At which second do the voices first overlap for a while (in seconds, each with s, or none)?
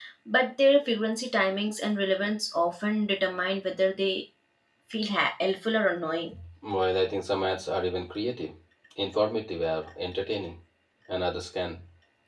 none